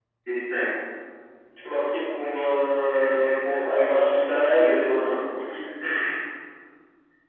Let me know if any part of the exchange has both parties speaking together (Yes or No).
Yes